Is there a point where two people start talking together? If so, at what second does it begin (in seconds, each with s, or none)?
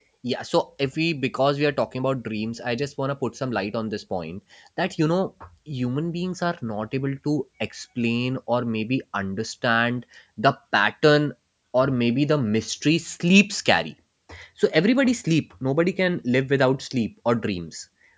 none